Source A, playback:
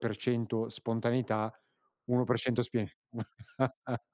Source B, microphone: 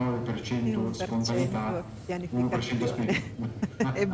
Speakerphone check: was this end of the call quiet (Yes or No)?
No